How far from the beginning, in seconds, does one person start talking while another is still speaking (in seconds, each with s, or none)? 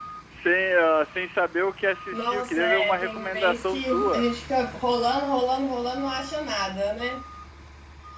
2.1 s